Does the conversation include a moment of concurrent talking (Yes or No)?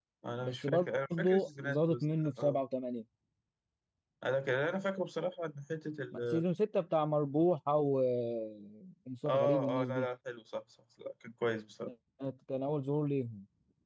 Yes